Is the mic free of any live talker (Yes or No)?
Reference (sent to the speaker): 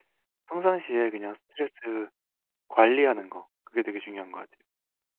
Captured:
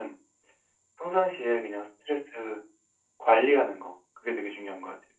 Yes